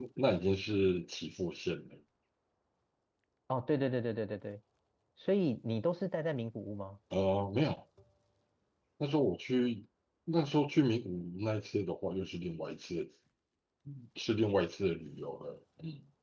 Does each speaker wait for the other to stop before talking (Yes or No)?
Yes